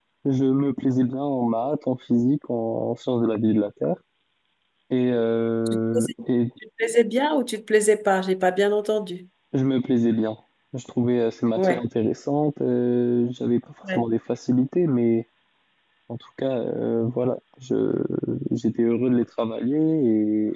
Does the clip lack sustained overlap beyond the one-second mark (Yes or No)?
Yes